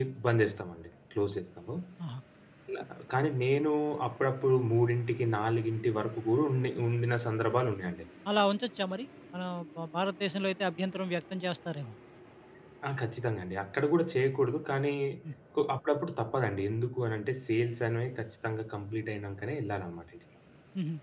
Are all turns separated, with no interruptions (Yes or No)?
Yes